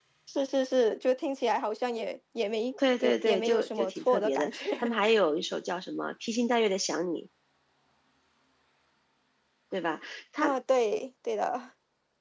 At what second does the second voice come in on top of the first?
3 s

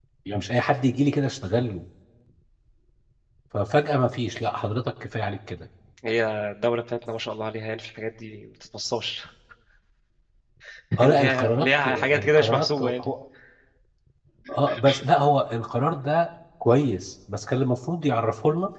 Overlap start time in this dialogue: 11 s

